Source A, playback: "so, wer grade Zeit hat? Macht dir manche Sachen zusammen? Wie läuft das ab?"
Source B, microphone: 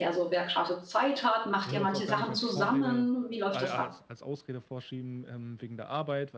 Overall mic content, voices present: both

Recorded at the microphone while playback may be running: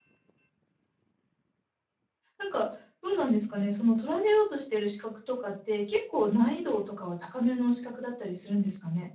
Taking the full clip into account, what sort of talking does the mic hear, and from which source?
user only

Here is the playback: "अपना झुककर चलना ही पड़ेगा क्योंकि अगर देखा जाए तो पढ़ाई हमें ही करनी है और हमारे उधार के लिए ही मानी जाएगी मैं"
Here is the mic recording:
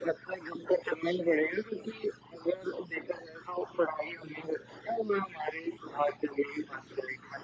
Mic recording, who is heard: echo only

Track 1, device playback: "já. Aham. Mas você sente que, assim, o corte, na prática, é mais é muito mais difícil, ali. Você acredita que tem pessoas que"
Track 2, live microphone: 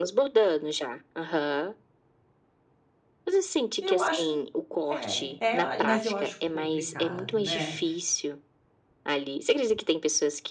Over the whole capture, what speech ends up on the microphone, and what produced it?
both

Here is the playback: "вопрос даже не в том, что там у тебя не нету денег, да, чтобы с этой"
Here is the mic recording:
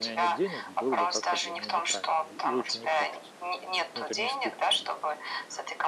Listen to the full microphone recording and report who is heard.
both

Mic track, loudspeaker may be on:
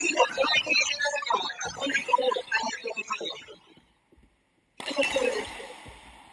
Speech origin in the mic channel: echo only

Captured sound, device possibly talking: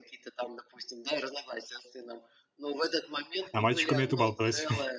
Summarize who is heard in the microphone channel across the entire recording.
both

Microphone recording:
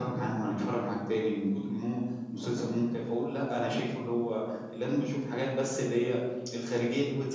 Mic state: echo only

